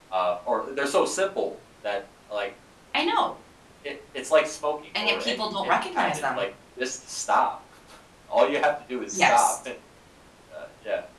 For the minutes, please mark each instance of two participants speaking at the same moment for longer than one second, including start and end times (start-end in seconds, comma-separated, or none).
5.0-6.4